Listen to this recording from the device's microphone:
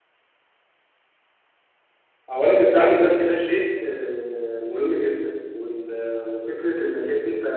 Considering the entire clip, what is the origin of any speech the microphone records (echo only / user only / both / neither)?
user only